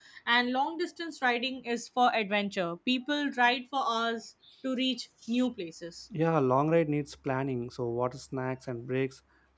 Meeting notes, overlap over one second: none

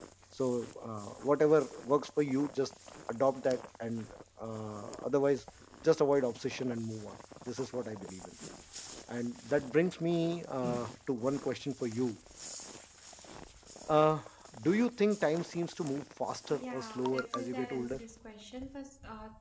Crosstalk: present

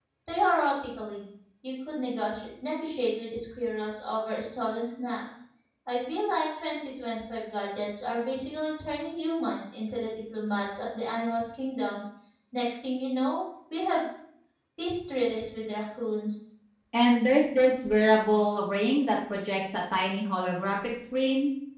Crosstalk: none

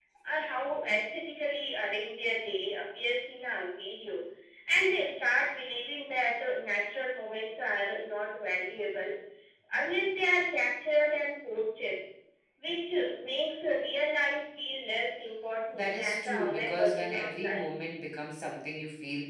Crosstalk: present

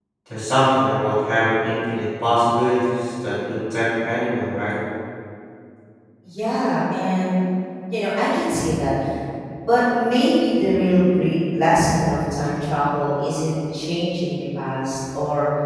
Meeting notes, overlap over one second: none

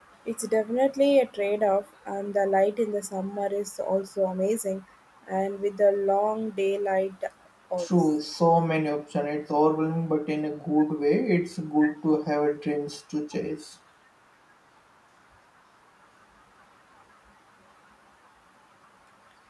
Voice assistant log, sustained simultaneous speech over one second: none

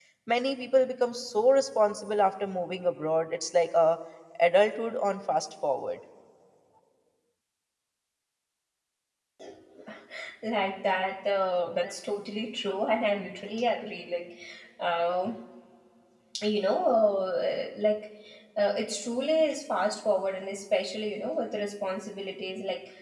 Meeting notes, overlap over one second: none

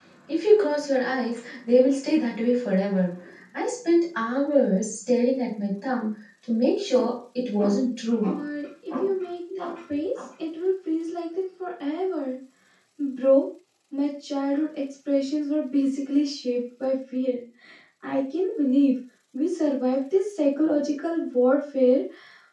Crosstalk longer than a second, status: none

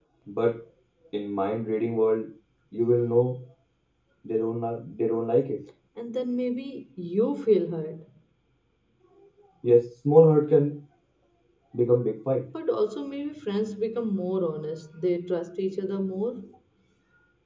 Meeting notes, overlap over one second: none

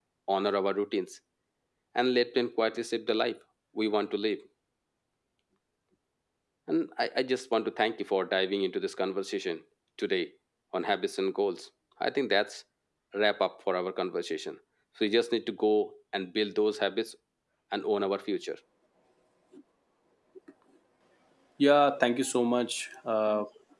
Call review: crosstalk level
none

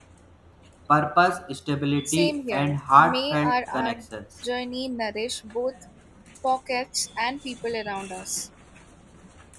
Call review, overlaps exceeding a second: present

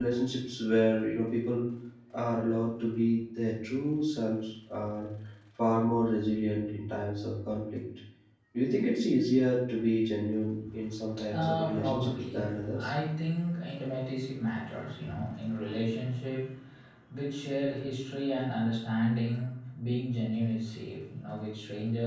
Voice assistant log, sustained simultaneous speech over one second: present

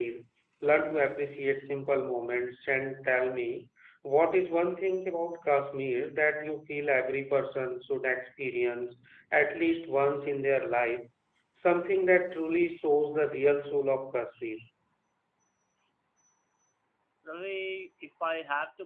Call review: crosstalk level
none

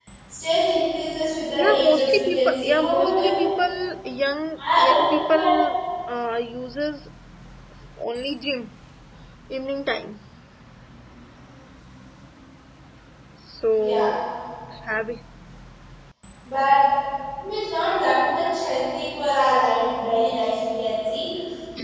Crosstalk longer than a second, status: present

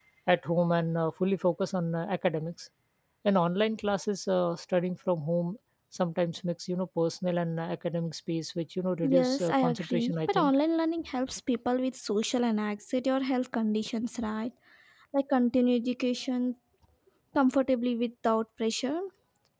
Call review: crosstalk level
present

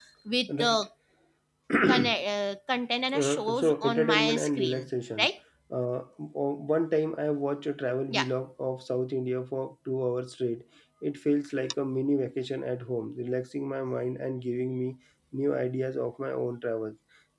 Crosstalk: present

